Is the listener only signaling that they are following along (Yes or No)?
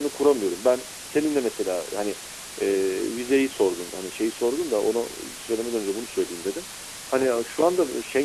Yes